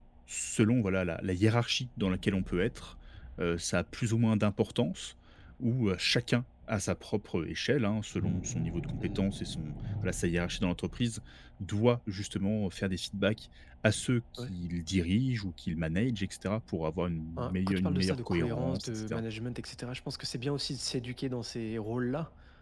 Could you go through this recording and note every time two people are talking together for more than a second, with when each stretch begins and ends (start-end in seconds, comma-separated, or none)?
17.4-19.2